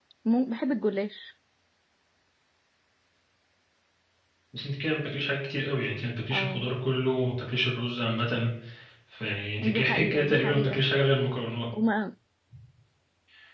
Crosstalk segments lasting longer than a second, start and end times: 9.6-10.8

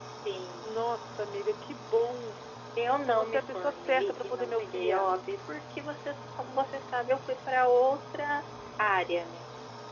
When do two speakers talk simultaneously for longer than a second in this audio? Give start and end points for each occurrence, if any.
3.1-5.1

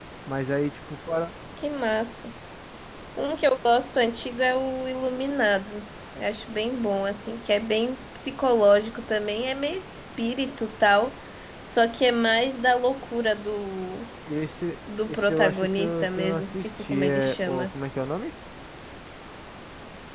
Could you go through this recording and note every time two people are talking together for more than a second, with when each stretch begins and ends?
15.1-17.7

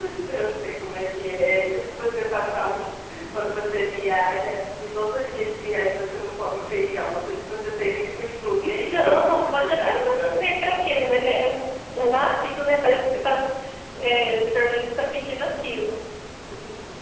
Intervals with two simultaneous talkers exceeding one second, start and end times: 8.6-10.4

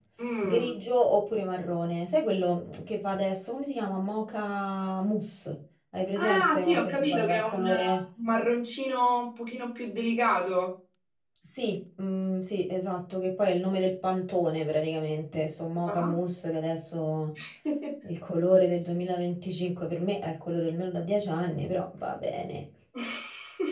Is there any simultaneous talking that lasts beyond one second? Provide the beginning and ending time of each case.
6.2-8.0

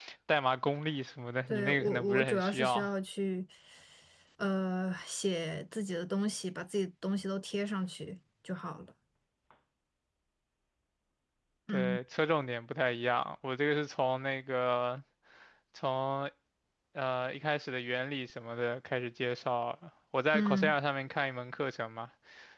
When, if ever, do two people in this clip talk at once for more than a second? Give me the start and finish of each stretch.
1.5-2.9

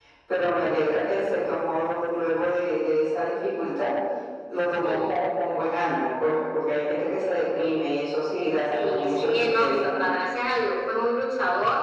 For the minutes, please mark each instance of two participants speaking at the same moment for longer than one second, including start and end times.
8.7-10.0

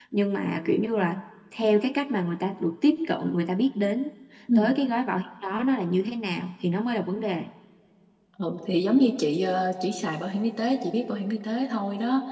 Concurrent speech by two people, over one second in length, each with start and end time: none

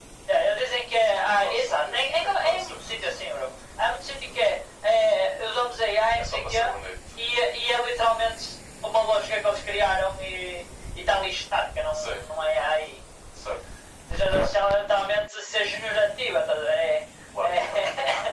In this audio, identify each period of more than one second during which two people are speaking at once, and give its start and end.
1.2-3.1

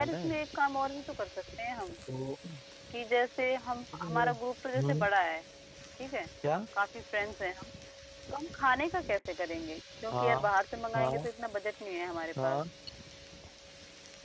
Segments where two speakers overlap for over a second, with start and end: none

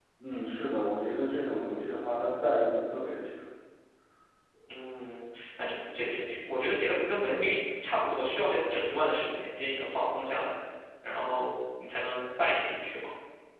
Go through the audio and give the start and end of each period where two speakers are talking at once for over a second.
none

